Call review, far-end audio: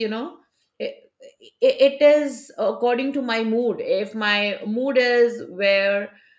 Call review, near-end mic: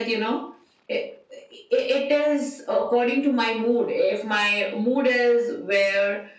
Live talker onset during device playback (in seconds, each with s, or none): none